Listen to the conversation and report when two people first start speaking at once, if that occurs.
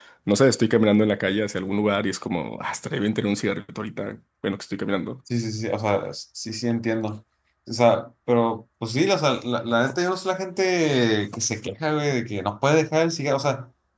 none

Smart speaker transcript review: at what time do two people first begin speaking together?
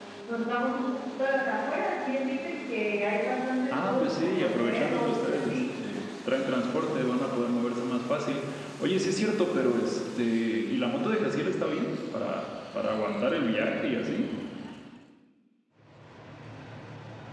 3.7 s

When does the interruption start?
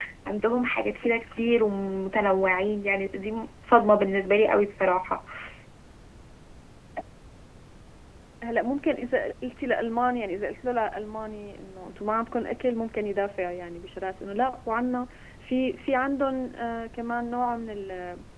none

